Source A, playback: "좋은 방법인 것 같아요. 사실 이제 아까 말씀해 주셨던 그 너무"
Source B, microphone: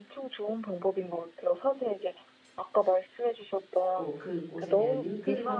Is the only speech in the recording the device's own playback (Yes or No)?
No